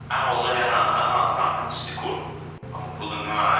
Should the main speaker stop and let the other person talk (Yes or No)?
No